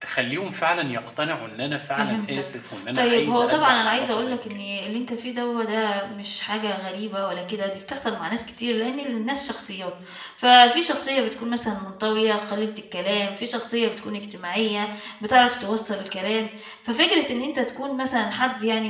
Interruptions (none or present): present